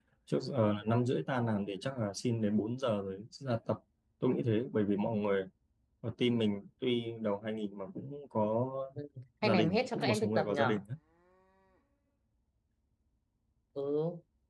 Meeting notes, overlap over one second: present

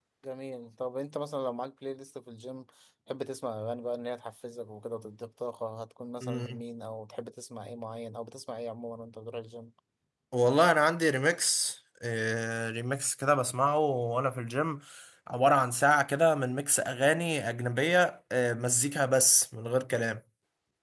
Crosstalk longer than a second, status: none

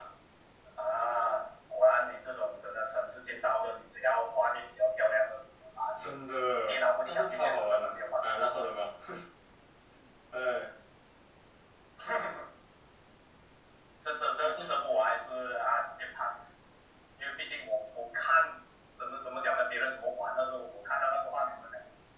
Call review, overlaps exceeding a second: present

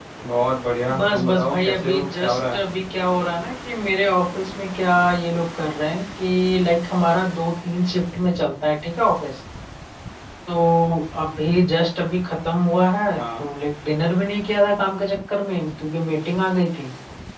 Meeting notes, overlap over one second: present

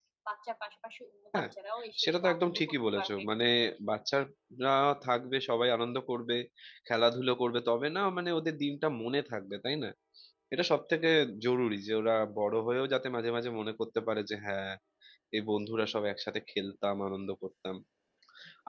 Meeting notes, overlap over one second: present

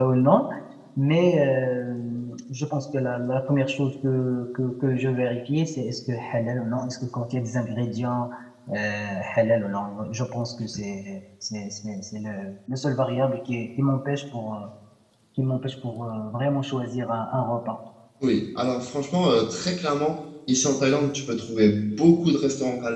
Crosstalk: none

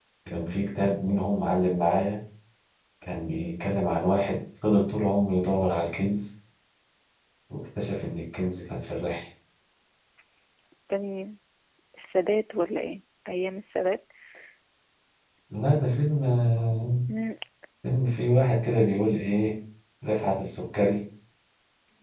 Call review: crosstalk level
none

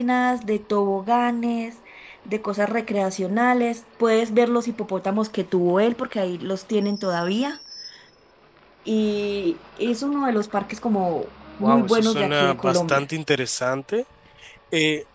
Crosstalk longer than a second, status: present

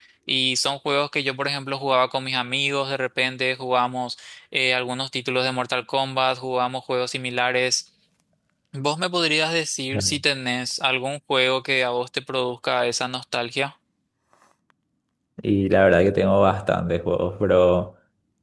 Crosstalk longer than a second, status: none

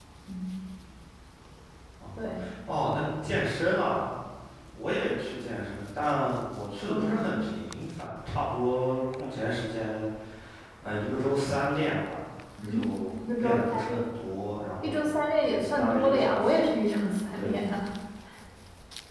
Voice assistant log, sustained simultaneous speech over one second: present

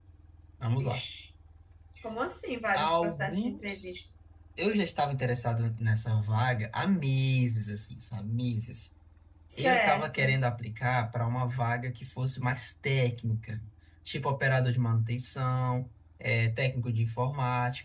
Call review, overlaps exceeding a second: present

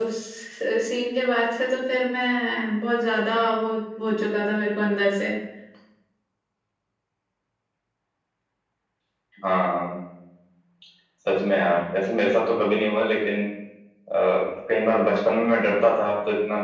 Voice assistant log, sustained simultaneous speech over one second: none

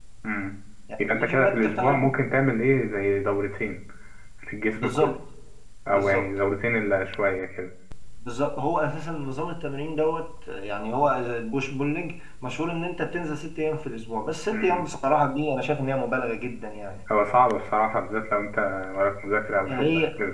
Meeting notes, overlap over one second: present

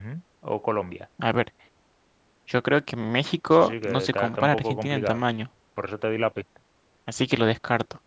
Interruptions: present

